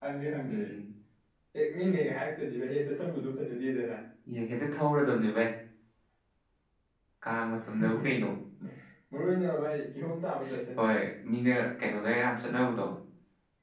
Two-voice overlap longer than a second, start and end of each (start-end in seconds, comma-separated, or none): none